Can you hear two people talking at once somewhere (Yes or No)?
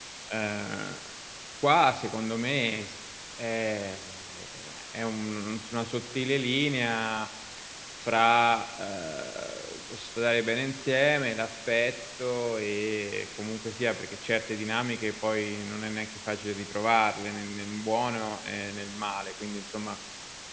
No